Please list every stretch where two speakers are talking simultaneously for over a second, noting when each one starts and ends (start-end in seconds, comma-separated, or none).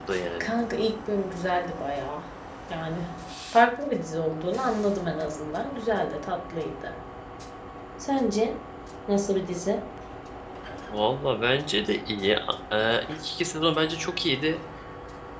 none